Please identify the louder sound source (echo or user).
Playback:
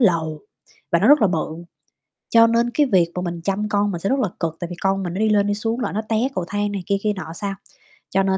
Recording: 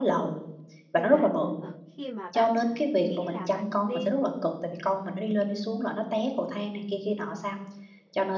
echo